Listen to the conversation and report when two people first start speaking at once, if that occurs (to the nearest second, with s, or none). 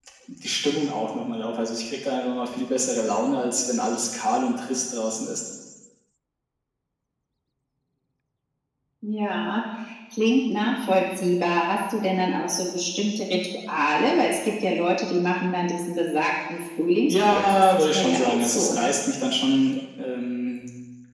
17 s